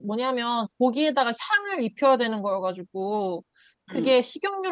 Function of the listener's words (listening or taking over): listening